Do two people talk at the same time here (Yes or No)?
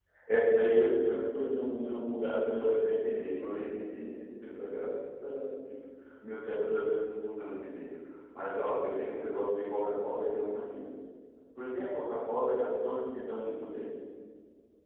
No